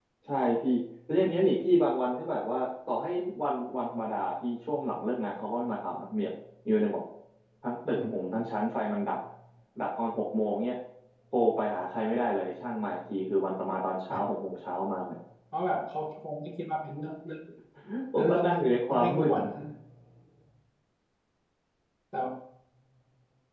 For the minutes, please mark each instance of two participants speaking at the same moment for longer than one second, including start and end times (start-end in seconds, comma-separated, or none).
none